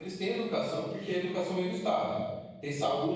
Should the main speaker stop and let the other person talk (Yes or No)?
No